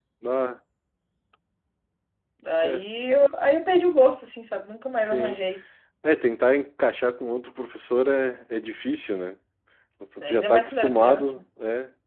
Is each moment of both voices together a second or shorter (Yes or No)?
No